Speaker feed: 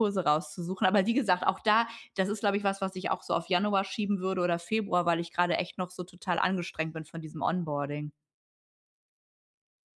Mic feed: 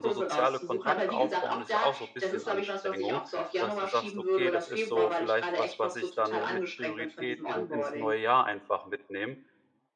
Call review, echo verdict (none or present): present